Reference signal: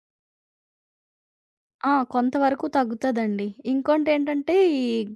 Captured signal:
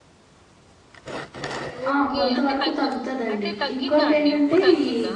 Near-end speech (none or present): present